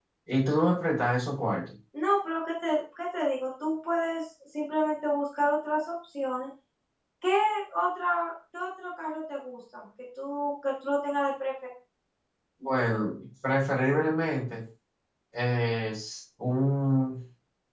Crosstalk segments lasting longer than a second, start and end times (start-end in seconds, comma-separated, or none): none